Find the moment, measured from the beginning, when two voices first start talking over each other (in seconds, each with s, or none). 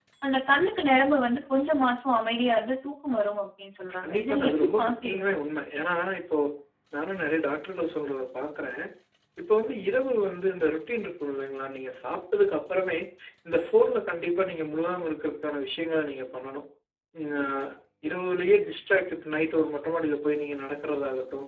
4.0 s